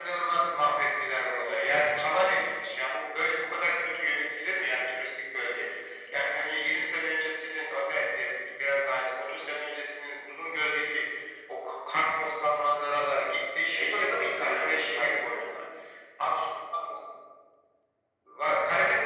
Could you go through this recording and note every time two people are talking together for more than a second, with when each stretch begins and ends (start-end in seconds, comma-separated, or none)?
13.7-15.5